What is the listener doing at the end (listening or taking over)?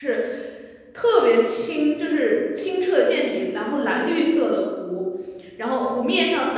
listening